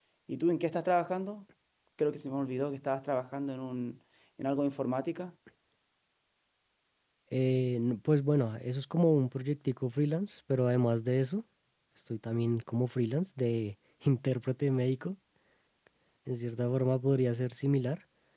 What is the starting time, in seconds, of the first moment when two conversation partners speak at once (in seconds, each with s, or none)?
none